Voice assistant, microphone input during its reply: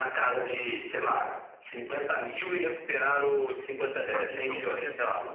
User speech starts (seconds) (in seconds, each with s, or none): 4.1 s